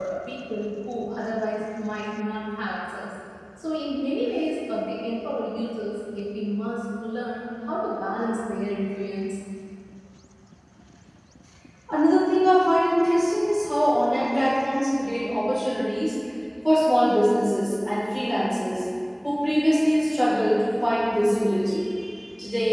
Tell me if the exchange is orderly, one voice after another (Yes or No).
Yes